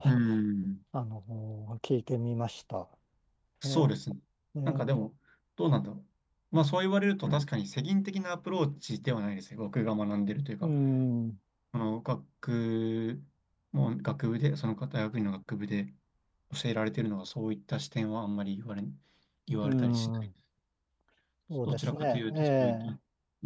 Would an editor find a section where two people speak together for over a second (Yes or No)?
Yes